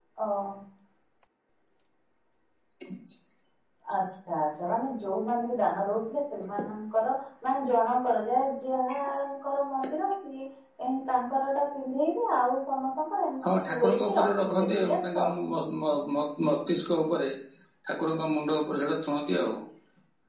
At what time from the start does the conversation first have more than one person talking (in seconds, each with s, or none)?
13.4 s